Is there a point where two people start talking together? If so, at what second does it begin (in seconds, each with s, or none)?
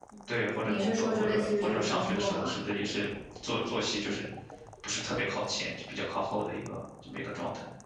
0.7 s